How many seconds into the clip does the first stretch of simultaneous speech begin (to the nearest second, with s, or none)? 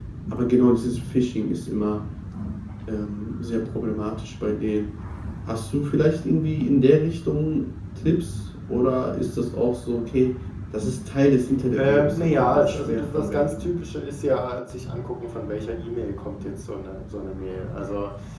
12 s